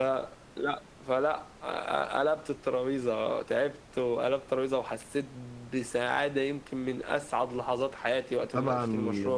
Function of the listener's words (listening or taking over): taking over